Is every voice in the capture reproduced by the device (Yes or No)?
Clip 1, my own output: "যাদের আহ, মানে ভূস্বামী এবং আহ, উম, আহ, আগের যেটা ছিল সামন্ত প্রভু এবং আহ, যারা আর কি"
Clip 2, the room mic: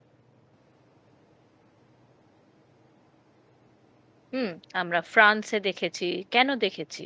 No